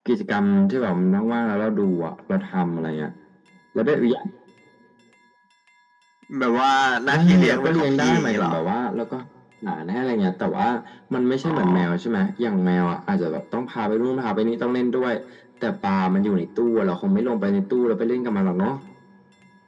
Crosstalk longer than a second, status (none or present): present